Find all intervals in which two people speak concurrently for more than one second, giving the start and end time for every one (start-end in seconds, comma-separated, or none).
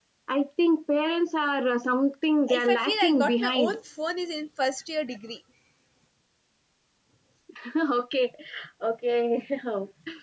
2.5-3.8